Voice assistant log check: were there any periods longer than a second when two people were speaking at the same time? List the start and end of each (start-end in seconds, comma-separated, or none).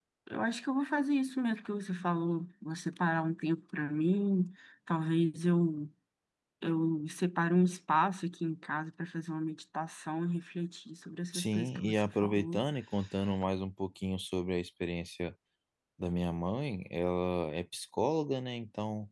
11.3-12.6